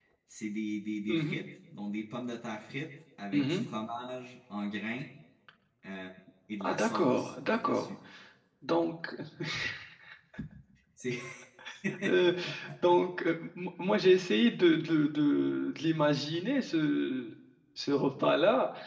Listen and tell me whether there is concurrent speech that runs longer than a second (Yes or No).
Yes